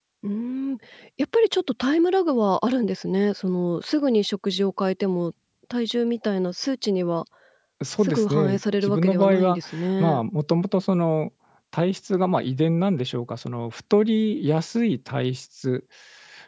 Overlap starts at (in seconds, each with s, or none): 8.0 s